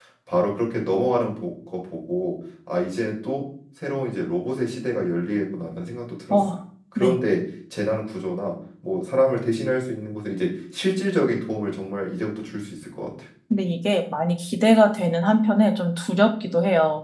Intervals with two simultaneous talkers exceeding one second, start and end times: none

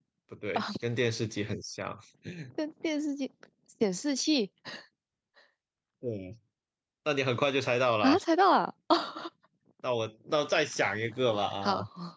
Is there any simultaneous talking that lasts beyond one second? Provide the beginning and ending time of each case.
none

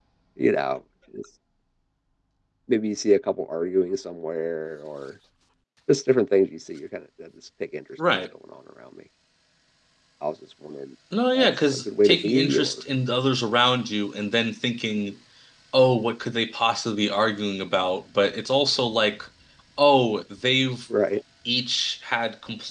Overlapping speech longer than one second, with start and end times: 11.3-12.8

